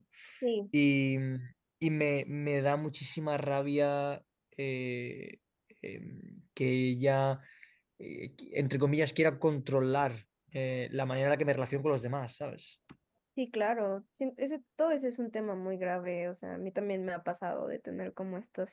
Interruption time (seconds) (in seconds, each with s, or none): none